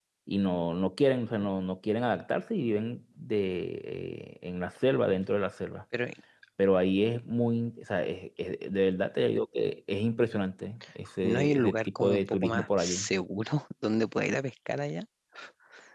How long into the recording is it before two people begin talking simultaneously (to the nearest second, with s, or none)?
11 s